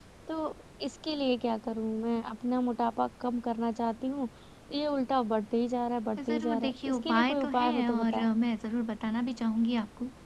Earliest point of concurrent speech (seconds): 6.2 s

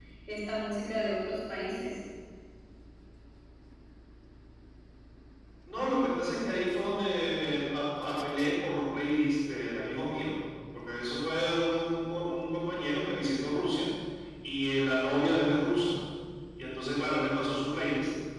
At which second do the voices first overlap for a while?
none

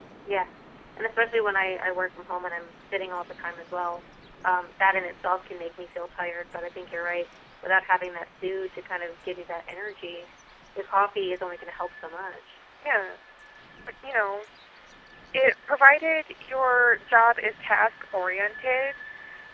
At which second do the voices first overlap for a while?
none

